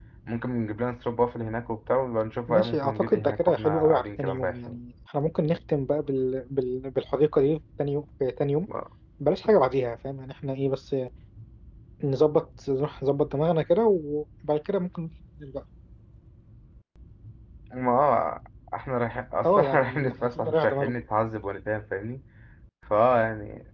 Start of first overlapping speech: 2.5 s

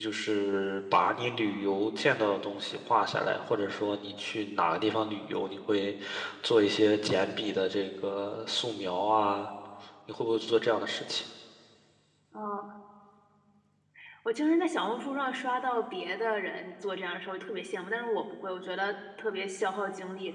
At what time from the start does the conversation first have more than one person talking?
none

